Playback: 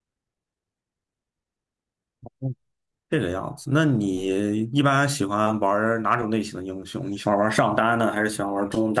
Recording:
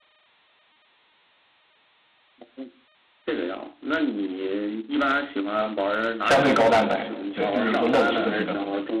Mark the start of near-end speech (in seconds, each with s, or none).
6.2 s